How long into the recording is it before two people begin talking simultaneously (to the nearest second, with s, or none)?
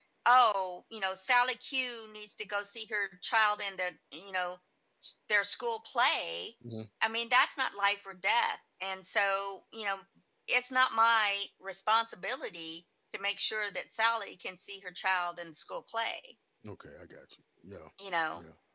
none